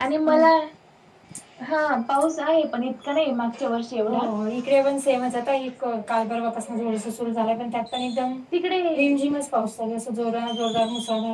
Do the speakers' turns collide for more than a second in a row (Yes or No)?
No